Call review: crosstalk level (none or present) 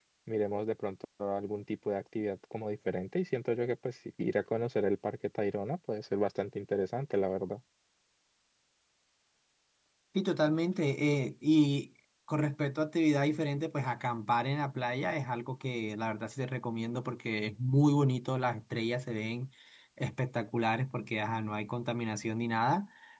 none